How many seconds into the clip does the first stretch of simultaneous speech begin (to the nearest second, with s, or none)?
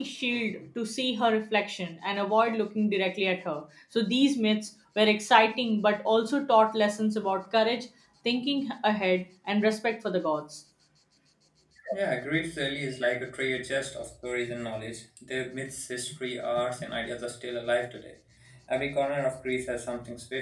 none